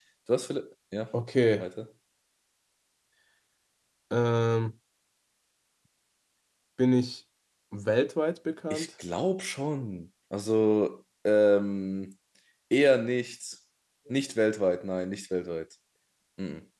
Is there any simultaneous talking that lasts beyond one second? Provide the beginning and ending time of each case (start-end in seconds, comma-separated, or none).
none